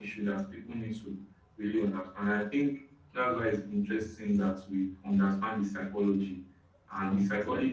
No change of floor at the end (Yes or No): Yes